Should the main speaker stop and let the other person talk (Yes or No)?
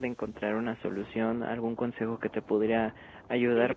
No